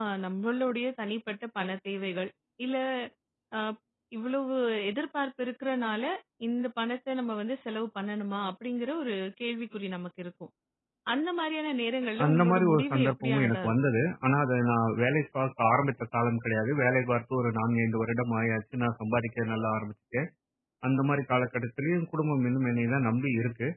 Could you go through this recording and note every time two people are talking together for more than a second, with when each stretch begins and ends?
12.2-13.7

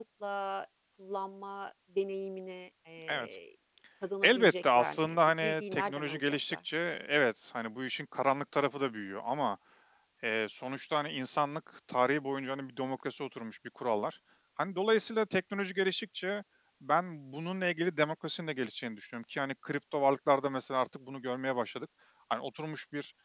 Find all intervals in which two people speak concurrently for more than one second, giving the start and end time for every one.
4.2-6.6

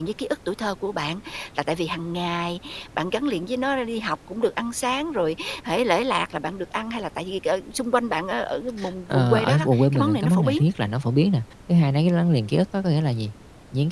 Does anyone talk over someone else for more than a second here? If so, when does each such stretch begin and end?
9.1-10.6

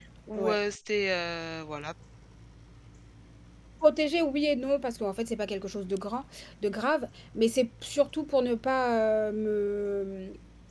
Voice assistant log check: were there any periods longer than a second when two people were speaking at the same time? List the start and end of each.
none

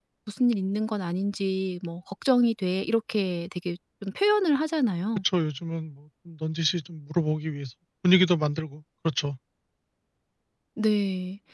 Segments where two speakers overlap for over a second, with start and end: none

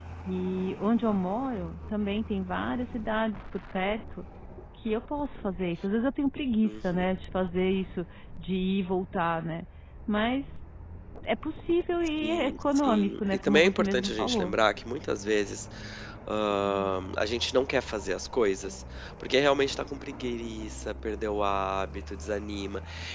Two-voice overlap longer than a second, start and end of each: 12.2-14.6

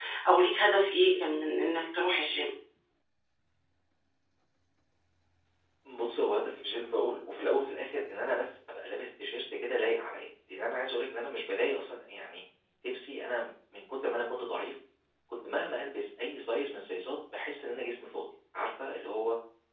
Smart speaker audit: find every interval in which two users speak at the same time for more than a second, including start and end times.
none

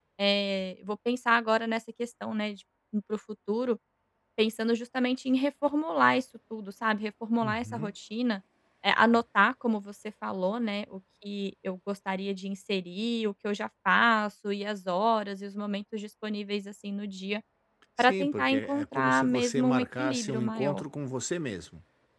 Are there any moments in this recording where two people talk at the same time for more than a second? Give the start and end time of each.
18.0-20.8

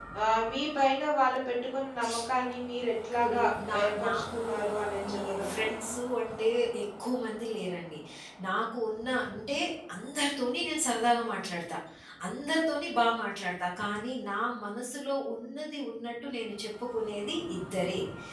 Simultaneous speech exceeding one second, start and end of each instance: 3.8-5.7

